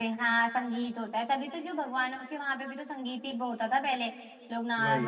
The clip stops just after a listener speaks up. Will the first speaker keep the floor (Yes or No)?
Yes